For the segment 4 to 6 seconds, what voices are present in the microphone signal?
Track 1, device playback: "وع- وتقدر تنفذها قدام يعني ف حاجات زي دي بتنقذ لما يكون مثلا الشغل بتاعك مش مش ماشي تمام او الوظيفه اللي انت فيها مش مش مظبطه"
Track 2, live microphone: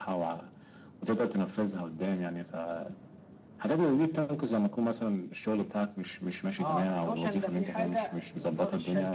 echo only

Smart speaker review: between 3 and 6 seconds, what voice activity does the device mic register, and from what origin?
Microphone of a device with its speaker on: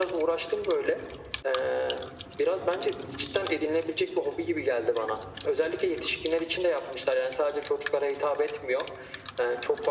echo only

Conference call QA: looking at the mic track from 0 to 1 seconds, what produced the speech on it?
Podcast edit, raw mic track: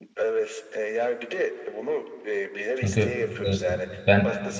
echo only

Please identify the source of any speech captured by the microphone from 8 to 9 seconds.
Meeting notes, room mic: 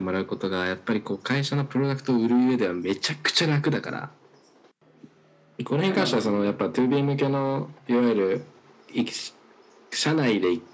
echo only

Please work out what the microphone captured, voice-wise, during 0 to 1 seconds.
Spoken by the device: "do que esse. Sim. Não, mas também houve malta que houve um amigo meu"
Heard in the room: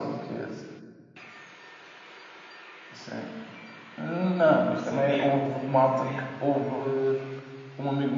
echo only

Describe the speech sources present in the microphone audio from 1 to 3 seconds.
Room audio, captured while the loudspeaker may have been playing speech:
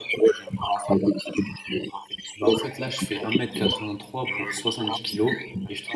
both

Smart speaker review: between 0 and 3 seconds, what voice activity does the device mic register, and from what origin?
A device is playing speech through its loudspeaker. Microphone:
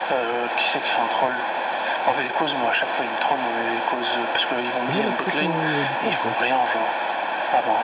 echo only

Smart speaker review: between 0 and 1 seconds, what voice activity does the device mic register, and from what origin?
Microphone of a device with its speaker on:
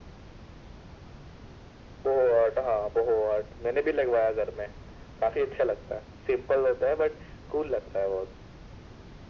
neither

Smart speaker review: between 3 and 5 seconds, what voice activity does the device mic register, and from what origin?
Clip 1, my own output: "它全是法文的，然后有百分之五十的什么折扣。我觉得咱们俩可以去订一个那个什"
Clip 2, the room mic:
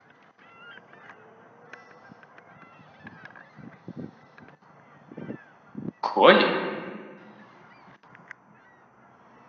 neither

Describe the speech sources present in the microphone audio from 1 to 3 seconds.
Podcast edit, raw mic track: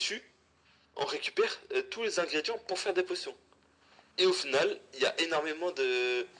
echo only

